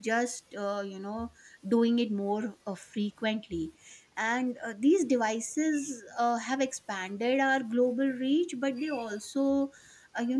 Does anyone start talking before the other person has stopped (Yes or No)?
No